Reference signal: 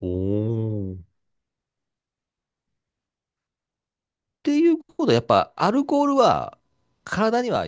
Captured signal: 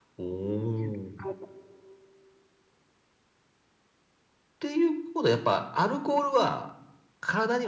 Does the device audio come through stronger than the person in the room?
Yes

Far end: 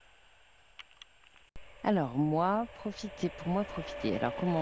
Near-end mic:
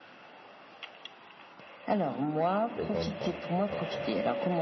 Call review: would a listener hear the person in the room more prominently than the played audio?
No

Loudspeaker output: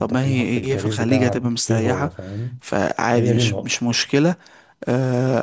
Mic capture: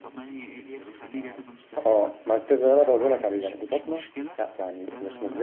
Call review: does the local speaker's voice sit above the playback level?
Yes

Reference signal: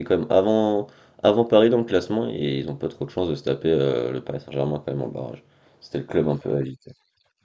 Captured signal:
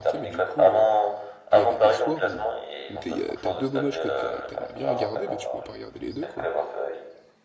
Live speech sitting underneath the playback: Yes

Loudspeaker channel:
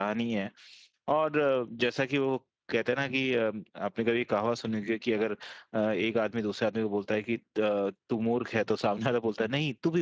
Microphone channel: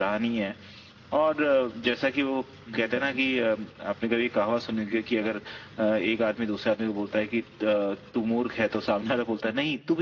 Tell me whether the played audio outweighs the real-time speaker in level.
Yes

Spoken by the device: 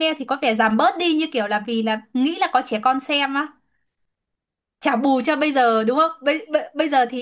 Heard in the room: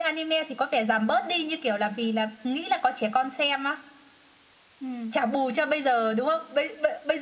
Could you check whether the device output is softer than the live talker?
No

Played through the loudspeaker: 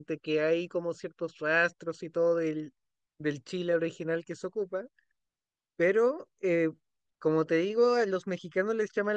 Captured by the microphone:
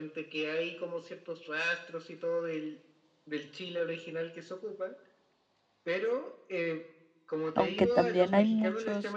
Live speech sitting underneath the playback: No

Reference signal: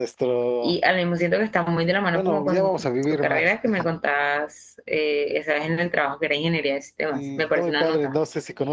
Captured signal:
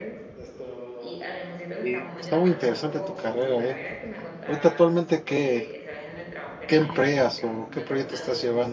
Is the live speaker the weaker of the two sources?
No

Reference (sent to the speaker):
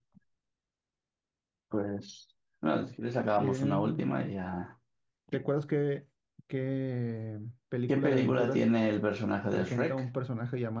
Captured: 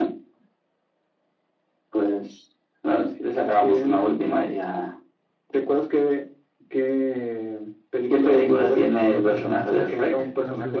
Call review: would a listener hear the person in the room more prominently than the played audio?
No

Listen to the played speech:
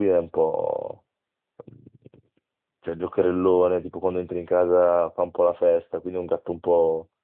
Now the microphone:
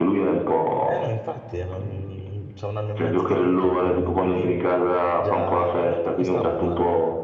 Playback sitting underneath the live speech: No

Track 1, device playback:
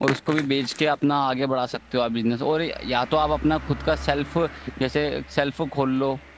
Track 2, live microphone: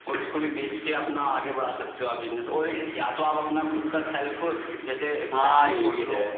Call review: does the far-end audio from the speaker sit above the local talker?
No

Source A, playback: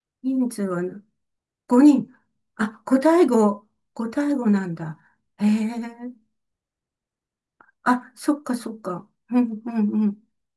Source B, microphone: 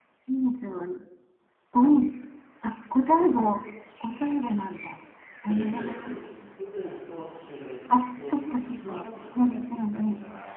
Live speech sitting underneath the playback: Yes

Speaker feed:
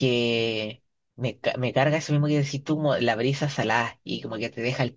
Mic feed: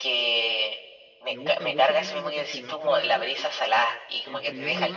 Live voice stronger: No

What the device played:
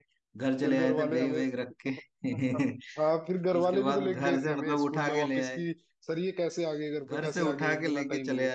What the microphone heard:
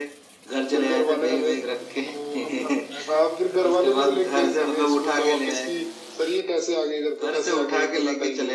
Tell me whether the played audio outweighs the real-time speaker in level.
Yes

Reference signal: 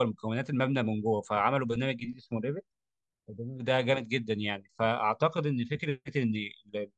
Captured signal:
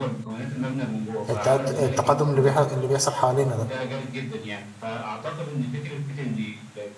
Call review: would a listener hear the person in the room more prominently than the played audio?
Yes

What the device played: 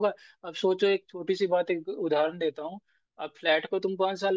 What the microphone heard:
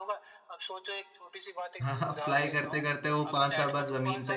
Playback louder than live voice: No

